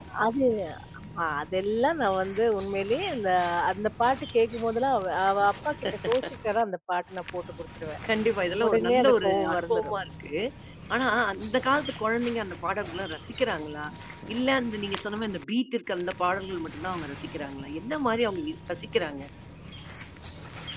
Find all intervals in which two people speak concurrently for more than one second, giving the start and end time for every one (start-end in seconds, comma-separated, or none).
8.7-9.9